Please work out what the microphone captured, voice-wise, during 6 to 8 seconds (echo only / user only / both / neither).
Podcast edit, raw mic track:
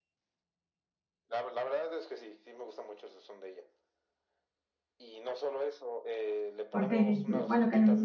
both